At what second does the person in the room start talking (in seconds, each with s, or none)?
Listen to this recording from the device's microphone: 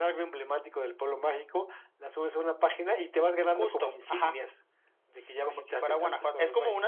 none